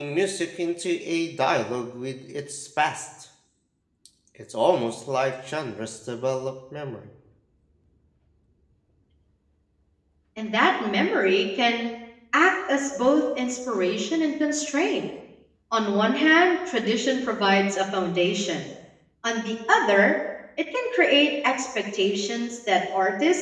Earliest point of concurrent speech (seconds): none

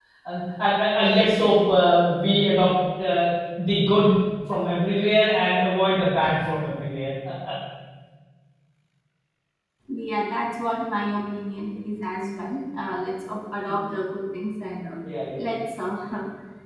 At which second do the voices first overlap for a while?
none

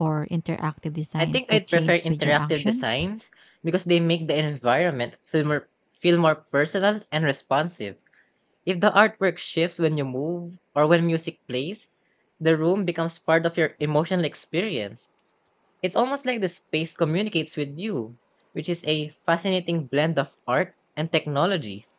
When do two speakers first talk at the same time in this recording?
1 s

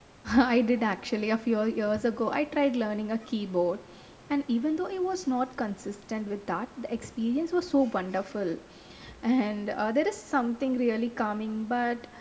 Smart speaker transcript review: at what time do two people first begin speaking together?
none

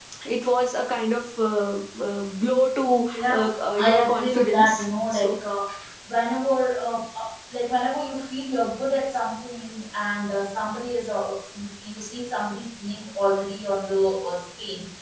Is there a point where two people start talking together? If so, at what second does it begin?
3 s

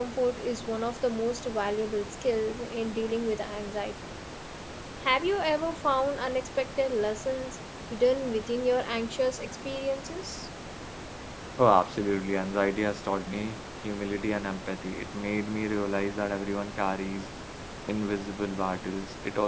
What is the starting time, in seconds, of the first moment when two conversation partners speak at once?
none

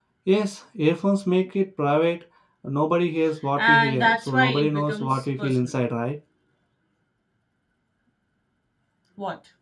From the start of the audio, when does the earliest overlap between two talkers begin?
4 s

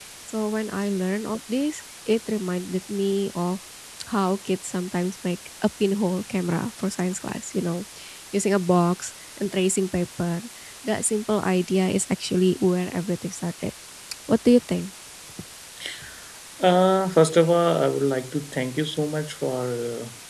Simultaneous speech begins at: none

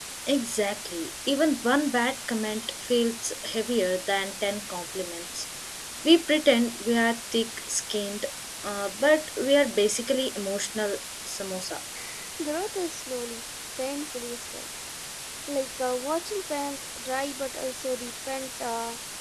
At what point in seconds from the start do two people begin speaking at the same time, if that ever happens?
none

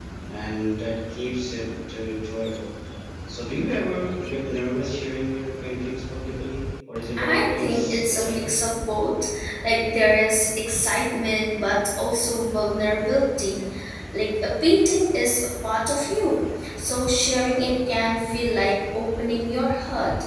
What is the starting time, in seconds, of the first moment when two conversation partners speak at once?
7 s

